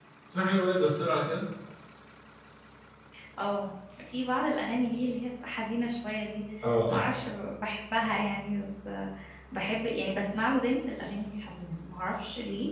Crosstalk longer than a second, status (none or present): none